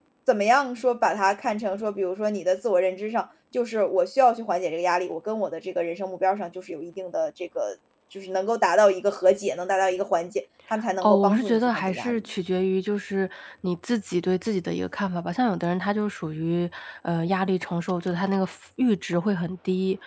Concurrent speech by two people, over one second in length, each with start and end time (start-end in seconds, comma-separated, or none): 11.0-12.2